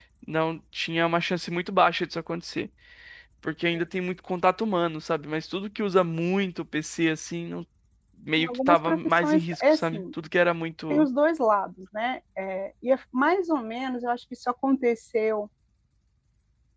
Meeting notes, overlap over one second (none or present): present